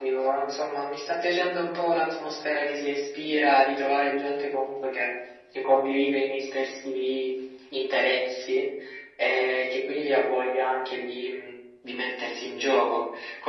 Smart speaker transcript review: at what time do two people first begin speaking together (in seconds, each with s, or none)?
none